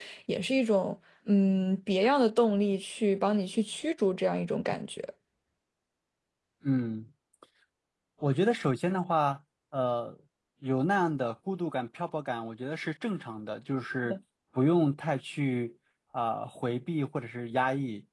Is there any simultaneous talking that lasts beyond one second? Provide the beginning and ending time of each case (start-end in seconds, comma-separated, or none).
none